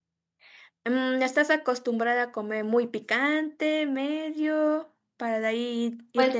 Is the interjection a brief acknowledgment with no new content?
No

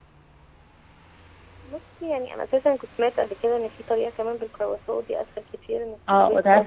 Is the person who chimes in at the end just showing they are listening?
No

